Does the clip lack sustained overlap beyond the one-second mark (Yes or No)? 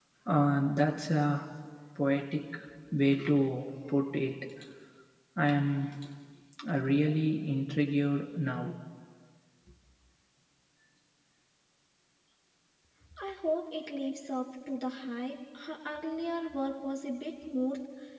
Yes